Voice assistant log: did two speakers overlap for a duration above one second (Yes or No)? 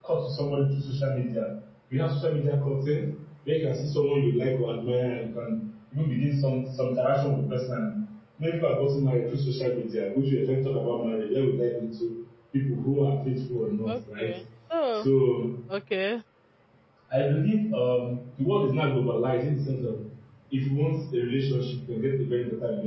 No